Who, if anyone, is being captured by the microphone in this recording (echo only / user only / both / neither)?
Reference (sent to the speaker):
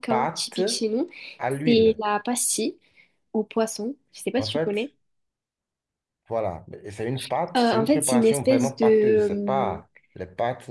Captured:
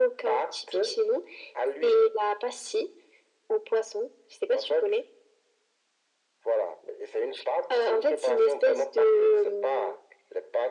echo only